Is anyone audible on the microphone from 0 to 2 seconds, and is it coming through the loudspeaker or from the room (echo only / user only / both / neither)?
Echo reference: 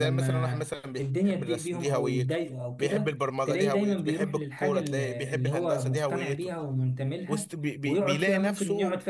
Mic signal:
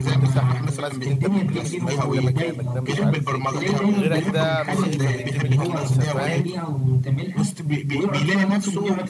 both